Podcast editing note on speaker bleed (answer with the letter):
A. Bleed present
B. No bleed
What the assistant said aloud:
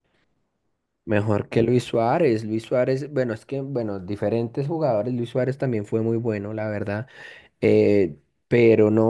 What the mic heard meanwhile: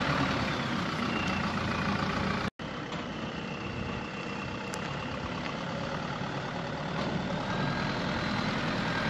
B